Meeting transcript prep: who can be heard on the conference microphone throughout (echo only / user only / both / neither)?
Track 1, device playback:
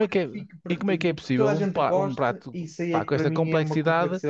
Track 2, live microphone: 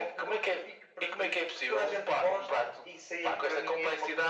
echo only